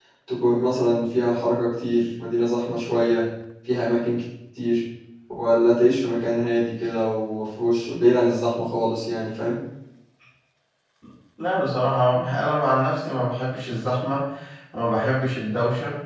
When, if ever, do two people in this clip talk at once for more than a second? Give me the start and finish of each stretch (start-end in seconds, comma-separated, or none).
none